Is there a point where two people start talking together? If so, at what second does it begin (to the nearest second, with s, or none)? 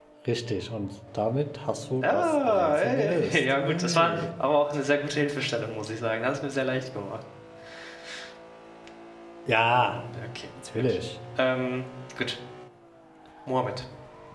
2 s